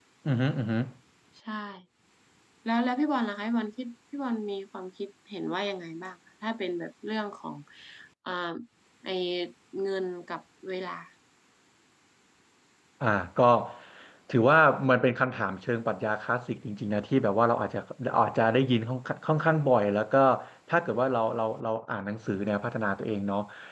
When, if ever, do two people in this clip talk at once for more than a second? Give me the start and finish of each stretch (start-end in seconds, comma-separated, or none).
none